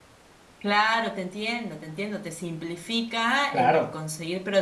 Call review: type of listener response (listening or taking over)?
listening